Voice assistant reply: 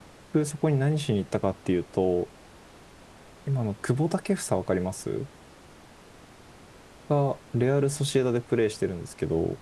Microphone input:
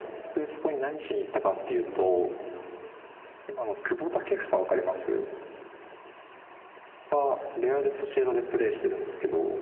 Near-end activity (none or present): none